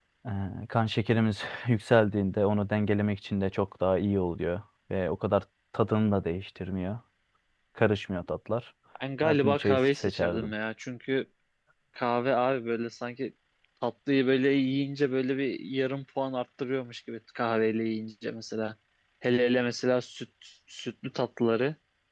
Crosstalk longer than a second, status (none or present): present